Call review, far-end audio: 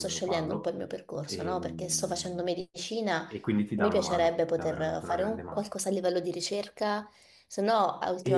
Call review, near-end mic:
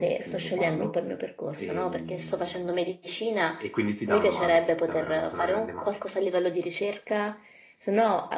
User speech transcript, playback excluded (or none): none